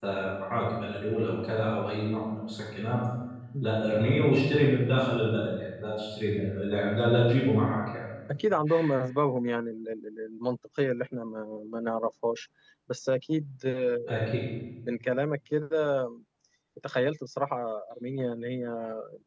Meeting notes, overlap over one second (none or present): none